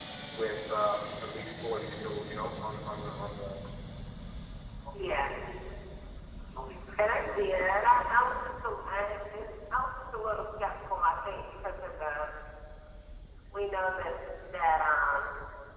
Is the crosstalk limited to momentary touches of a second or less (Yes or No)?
Yes